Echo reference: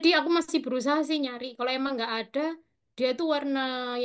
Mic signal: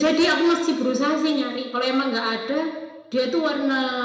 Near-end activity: none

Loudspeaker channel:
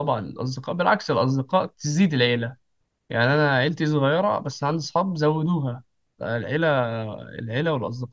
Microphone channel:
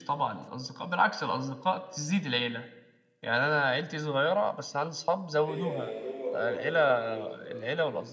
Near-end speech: present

